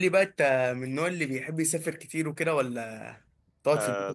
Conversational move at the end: taking over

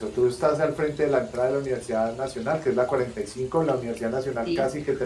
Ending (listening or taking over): listening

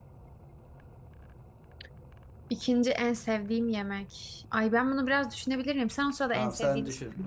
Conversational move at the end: taking over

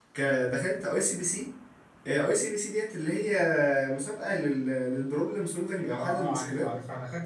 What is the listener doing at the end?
taking over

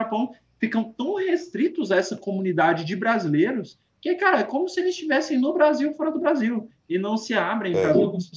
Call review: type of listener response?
listening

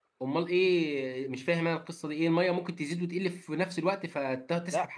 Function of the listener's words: taking over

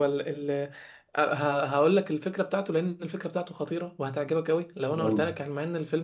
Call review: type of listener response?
listening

